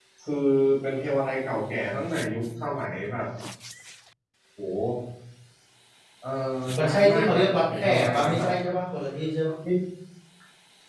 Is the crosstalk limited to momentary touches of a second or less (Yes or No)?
No